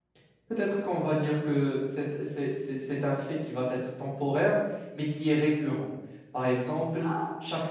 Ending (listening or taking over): listening